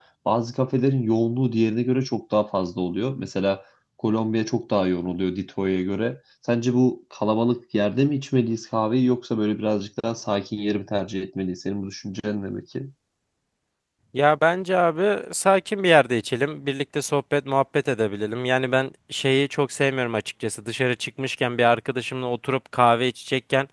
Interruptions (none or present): none